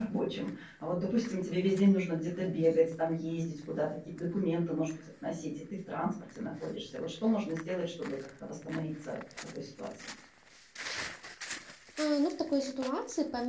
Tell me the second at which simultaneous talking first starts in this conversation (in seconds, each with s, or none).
none